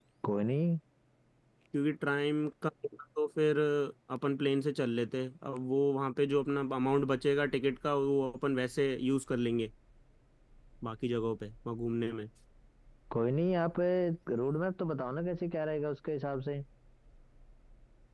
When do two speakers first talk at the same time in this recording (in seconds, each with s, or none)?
none